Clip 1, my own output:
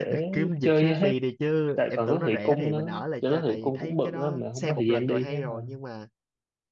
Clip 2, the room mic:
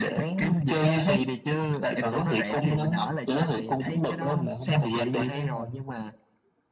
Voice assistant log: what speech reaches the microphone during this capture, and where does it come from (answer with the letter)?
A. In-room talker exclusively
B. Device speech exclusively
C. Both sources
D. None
B